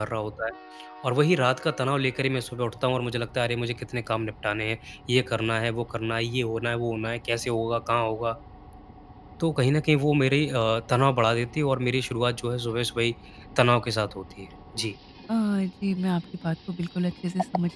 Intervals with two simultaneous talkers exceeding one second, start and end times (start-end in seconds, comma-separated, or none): none